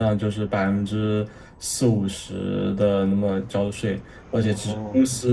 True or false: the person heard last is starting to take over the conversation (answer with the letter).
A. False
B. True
A